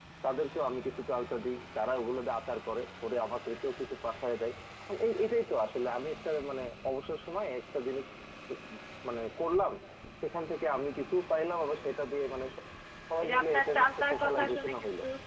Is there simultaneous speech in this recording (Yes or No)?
Yes